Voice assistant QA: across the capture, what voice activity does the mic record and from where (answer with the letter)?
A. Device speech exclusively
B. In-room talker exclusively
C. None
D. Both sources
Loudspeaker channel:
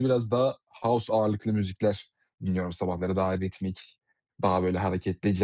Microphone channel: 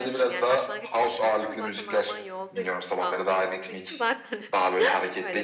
D